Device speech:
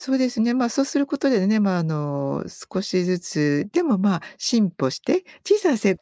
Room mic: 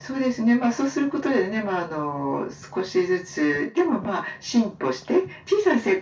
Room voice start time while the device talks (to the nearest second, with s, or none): none